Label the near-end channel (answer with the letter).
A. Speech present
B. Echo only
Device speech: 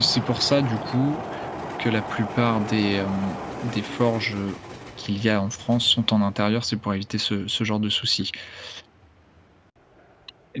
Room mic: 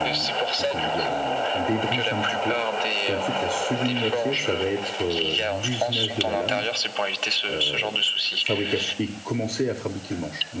A